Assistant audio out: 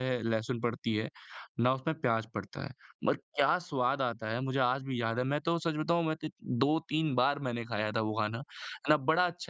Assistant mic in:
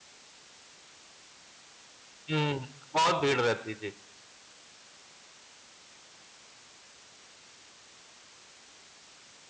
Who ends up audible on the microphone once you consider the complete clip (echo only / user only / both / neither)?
user only